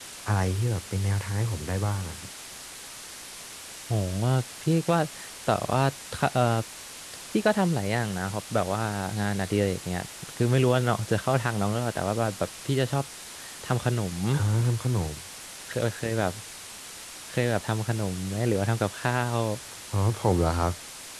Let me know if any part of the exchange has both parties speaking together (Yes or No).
No